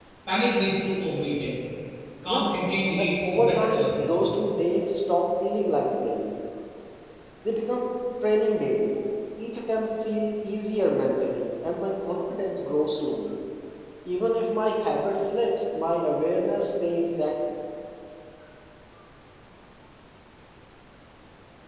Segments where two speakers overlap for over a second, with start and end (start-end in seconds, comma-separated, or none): 3.0-4.2